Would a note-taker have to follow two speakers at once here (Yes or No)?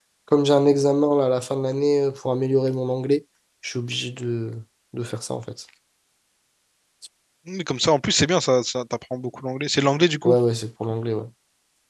No